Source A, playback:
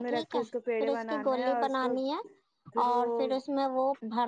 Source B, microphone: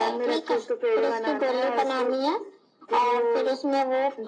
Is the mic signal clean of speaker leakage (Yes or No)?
No